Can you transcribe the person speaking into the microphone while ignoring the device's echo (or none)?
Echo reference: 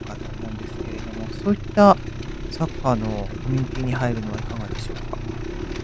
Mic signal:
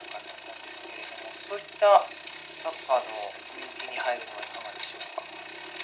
none